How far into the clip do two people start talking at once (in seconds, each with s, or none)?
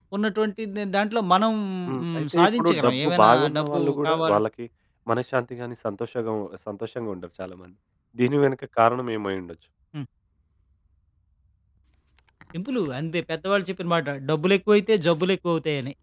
2.0 s